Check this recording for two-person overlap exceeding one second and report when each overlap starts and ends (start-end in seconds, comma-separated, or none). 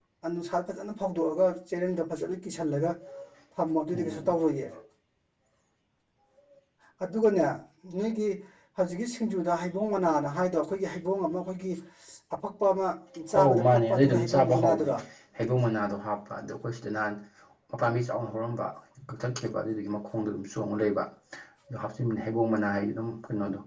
13.4-14.9